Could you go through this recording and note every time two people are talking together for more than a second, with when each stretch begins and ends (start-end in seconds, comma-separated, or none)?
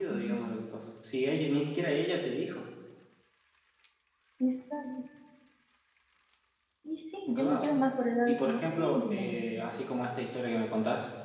8.2-9.8